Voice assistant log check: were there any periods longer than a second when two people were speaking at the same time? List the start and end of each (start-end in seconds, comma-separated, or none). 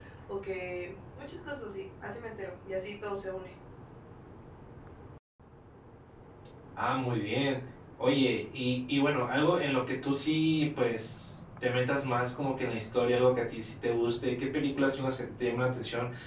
none